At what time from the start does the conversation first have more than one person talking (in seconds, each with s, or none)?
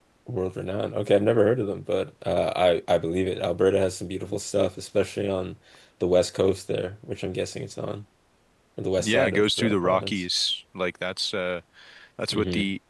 9.0 s